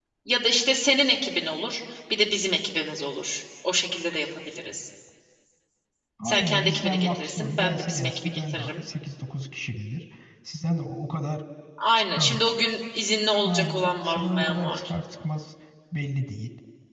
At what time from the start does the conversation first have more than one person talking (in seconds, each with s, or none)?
6.2 s